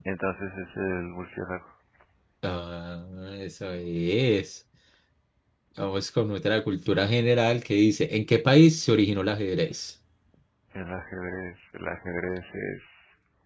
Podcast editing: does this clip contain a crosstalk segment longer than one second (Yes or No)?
No